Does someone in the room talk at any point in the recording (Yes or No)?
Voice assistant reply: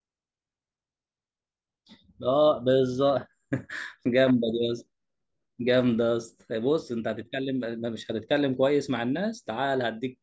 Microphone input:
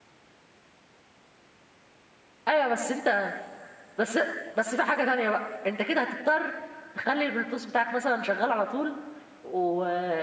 Yes